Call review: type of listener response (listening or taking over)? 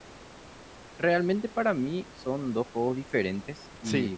listening